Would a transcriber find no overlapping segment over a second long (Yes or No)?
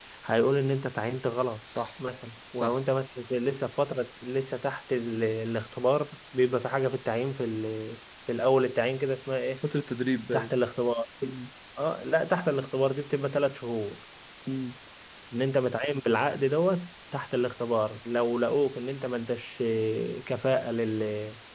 Yes